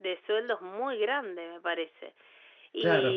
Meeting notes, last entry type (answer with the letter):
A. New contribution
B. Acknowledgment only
A